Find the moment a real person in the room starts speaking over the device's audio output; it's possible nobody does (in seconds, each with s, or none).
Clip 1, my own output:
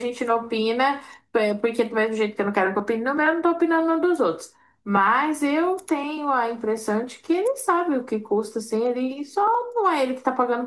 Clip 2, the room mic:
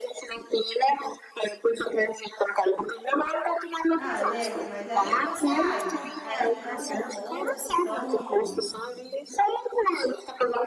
3.9 s